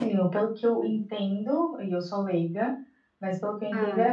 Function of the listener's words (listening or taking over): listening